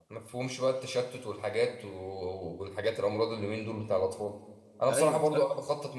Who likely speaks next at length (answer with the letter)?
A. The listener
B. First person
B